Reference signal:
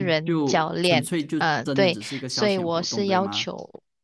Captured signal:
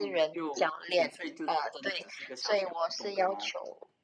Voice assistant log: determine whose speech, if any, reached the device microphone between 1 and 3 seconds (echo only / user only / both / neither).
echo only